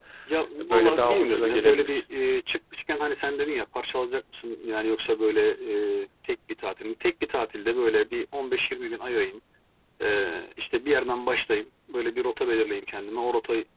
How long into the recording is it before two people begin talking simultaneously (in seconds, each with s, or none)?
0.6 s